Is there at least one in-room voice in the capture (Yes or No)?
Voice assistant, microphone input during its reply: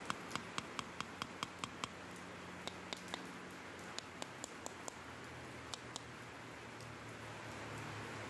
No